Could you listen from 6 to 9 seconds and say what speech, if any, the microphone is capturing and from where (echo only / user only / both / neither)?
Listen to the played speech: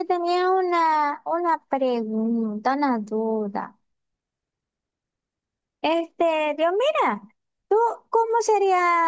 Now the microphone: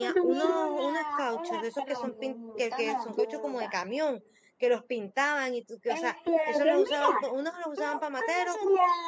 both